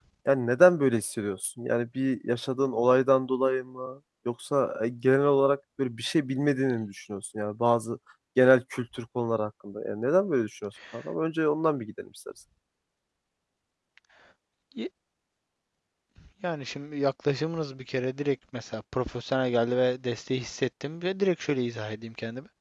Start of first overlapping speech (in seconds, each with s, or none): none